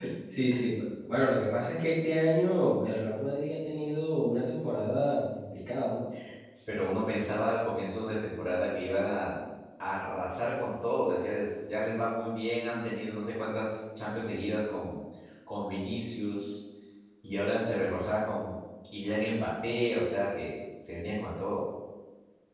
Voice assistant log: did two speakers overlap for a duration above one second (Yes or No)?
No